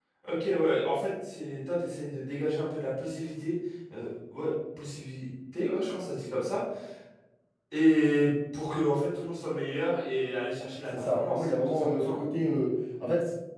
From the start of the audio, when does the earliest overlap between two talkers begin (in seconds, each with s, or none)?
10.9 s